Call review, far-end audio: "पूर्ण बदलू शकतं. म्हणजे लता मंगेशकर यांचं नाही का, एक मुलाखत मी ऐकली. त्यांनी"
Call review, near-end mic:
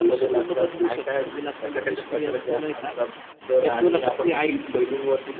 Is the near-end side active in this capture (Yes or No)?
Yes